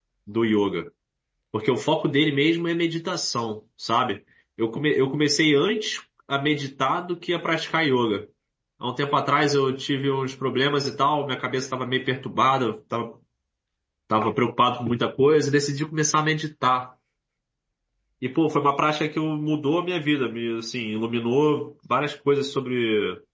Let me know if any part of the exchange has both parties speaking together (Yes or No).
No